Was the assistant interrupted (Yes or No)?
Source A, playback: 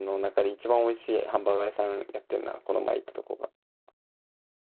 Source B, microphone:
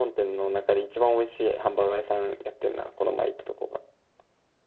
No